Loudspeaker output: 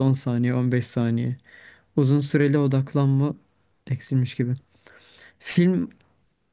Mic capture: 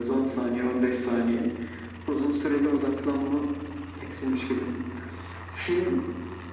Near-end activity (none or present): none